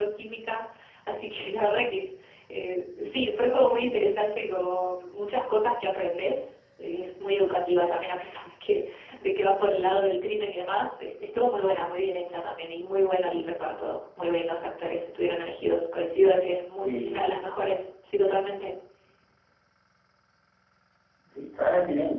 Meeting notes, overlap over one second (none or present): none